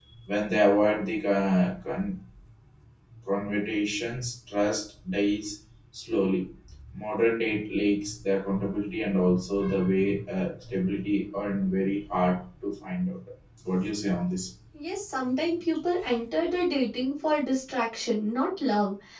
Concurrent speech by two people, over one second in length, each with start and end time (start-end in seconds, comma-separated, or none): none